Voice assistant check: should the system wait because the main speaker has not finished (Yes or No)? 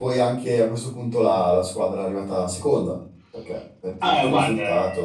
No